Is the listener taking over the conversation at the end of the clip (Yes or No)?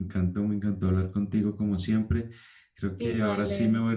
No